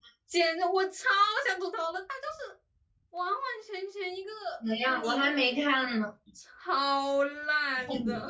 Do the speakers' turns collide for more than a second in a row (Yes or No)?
No